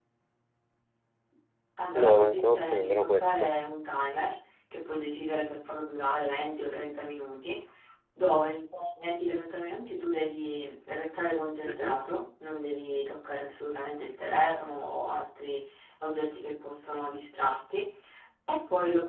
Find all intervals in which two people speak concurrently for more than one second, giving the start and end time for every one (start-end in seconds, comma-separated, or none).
1.9-3.5